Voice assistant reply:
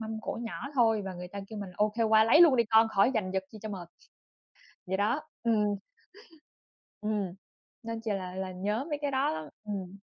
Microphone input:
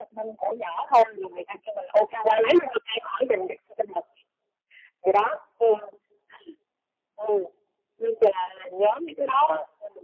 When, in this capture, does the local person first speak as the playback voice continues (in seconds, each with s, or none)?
none